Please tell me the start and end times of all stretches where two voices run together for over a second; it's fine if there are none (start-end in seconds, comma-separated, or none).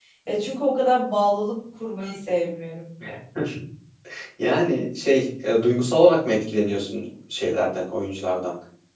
none